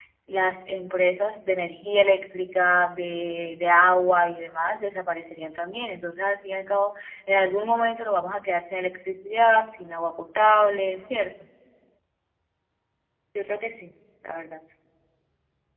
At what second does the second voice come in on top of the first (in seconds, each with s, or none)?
none